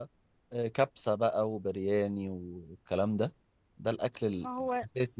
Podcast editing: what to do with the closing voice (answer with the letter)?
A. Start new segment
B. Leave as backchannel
B